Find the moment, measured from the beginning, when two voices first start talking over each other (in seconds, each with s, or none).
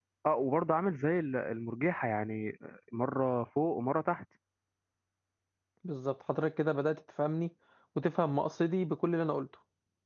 none